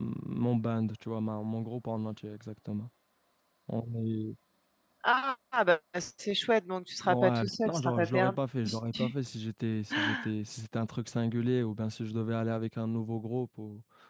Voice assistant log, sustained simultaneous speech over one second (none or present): present